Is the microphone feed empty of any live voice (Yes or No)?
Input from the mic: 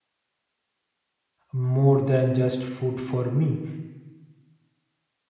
No